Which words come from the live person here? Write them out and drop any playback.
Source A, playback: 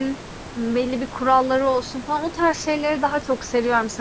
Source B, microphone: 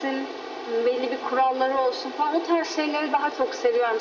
none

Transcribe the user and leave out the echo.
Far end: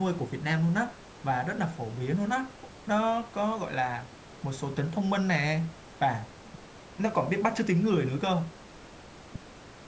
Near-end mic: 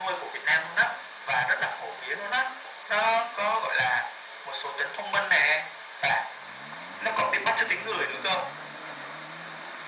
none

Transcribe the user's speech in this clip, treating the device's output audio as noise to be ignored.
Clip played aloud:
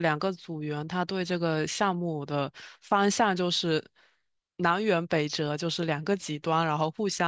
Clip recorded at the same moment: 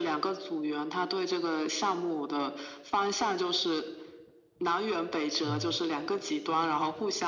嗯。

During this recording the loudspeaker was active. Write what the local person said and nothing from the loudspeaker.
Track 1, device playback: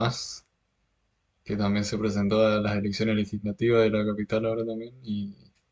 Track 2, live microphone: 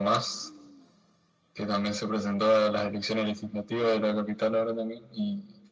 none

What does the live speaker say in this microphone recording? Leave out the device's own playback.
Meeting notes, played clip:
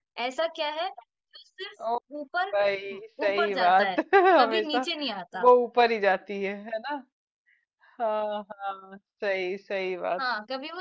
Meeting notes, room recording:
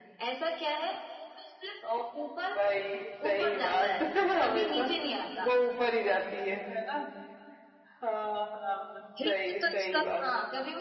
हिंट तो इसका

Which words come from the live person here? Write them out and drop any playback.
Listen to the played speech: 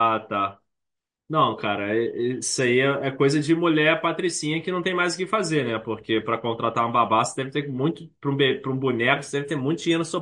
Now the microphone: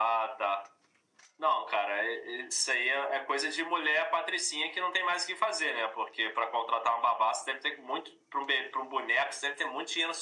none

